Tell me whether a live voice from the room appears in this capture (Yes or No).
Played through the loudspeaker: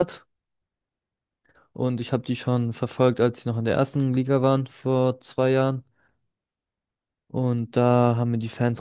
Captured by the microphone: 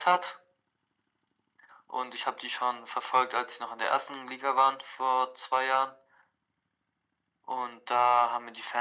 No